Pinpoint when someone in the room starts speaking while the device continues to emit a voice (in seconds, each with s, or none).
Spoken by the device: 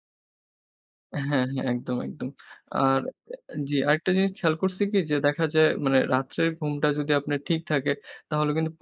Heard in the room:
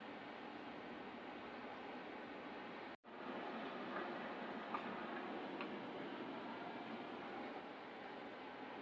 none